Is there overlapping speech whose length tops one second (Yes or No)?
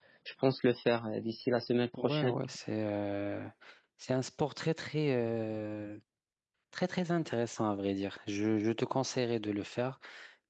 No